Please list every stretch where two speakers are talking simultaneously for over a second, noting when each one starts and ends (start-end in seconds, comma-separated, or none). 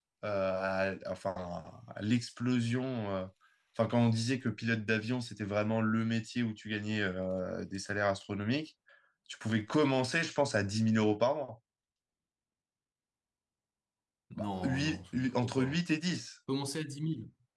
14.4-15.8